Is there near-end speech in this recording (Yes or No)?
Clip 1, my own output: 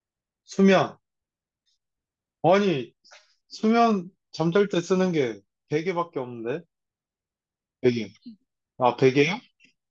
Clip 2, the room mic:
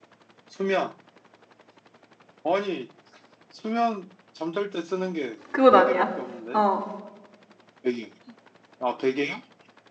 Yes